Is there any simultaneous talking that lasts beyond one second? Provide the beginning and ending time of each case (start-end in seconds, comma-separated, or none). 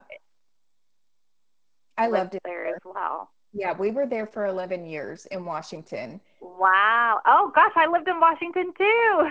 none